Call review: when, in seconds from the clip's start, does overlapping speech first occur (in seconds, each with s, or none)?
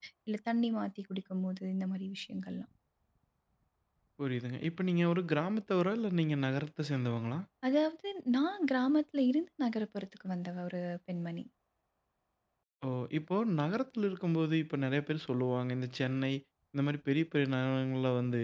none